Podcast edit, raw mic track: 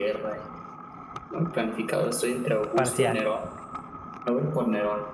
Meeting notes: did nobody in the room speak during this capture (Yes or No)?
No